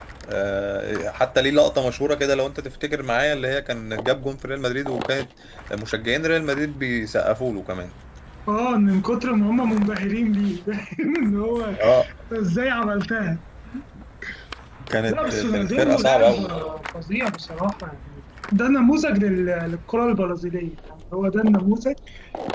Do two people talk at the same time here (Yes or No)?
Yes